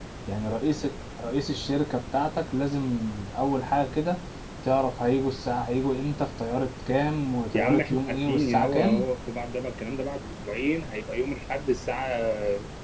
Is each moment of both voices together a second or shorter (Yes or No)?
No